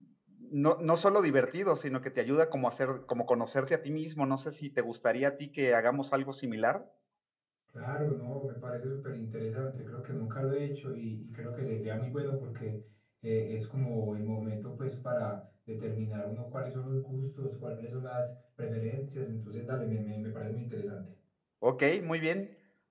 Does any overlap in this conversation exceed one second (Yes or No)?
No